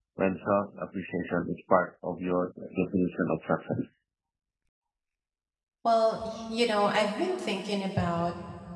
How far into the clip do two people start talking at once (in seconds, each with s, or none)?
none